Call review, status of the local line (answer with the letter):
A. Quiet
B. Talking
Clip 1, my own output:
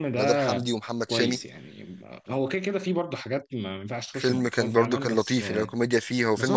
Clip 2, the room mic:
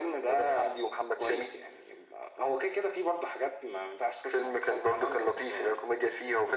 A